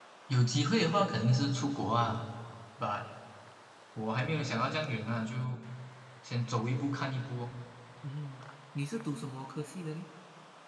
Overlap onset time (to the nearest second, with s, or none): none